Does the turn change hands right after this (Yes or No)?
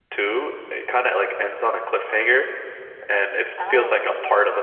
No